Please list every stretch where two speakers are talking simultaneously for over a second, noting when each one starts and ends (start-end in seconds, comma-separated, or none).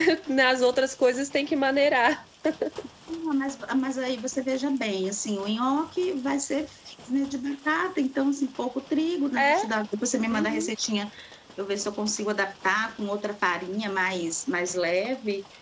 none